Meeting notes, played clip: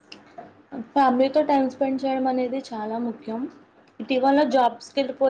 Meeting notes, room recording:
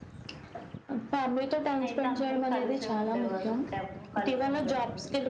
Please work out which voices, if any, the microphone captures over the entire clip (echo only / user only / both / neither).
both